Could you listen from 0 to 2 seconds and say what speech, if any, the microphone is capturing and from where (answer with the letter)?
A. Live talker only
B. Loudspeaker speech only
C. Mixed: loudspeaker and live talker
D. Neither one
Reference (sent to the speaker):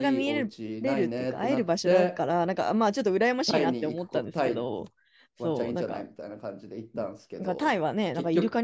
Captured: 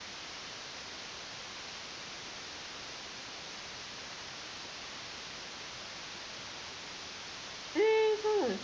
D